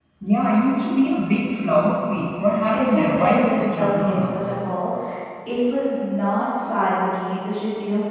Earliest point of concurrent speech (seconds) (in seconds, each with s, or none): 2.7 s